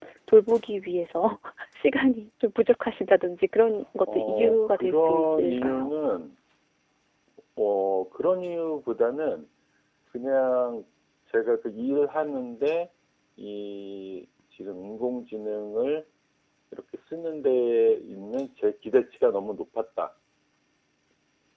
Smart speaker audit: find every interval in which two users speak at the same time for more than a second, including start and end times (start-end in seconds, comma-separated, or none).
4.1-5.9